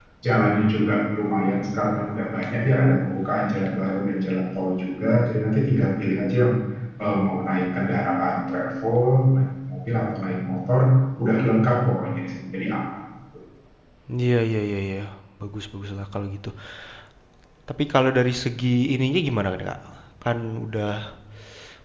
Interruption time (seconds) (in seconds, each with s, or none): none